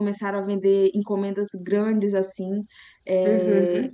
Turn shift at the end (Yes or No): No